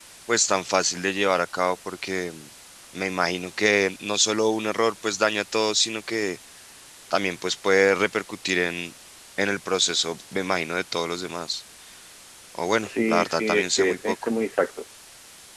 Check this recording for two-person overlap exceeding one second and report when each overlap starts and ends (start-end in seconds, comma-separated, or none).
12.8-14.2